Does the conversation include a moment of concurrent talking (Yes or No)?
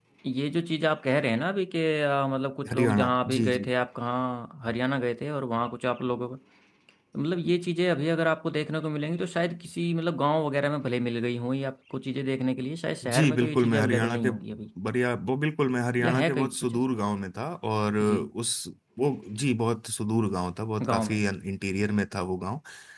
Yes